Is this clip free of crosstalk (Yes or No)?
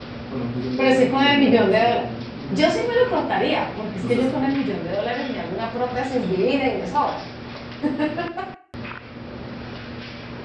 No